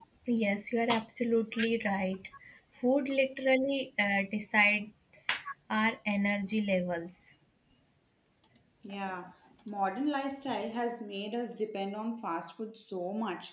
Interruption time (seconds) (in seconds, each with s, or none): none